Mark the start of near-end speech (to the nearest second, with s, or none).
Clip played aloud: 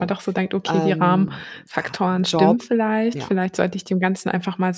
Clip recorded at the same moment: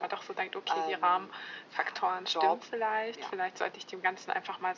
none